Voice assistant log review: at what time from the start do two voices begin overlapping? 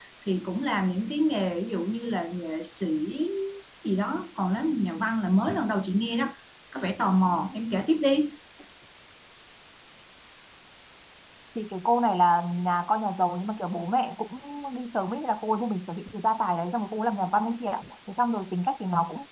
none

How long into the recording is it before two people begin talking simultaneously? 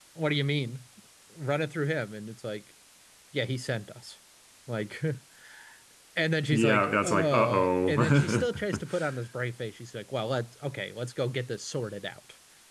6.5 s

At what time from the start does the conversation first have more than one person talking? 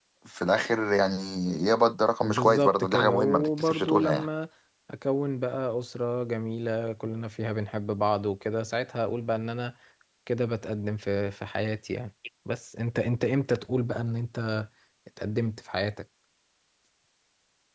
2.2 s

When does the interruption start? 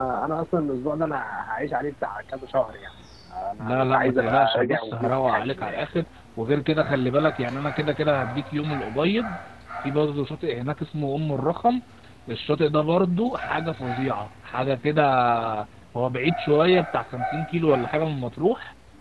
3.6 s

